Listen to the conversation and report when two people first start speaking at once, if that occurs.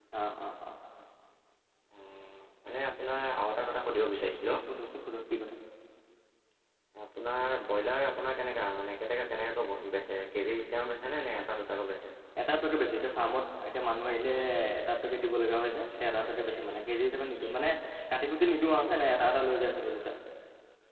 none

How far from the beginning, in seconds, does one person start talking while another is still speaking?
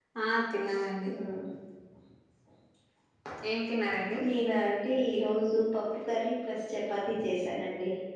none

